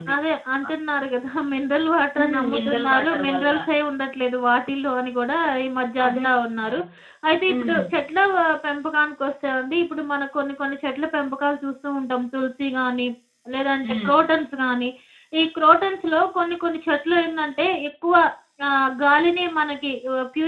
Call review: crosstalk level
present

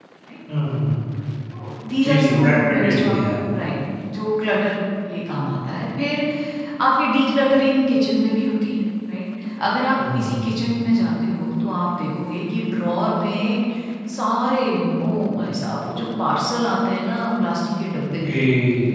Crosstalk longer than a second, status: present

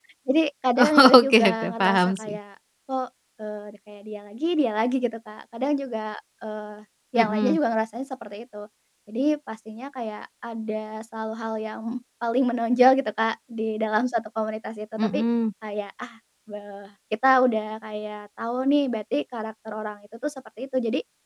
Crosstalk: present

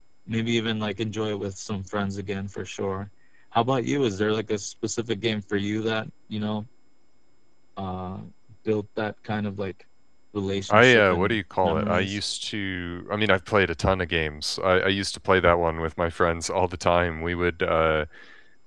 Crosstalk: present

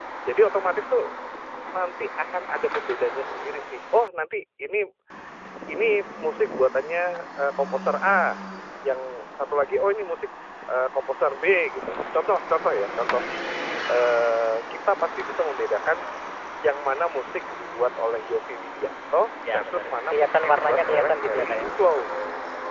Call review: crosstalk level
present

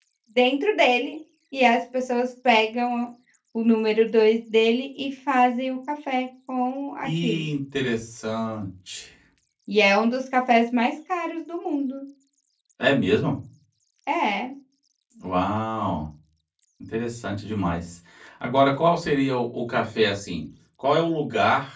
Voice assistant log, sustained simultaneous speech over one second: none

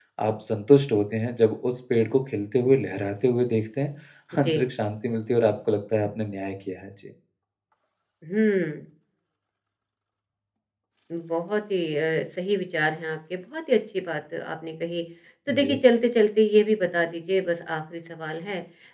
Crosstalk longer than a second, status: none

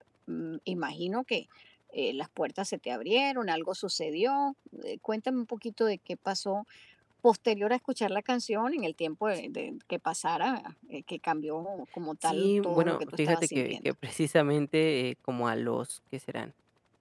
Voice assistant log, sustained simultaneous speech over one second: present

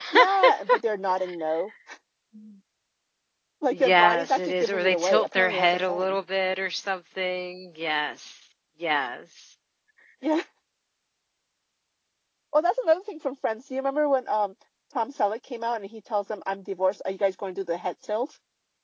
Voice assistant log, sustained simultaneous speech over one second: present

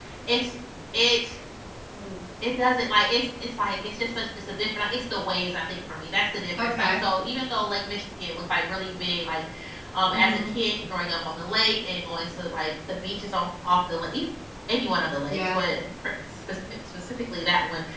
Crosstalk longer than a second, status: none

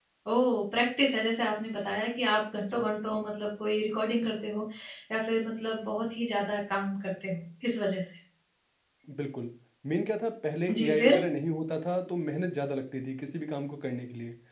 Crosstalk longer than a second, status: none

